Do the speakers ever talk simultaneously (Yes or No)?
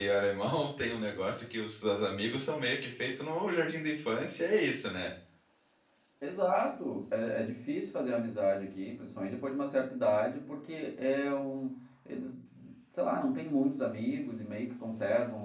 No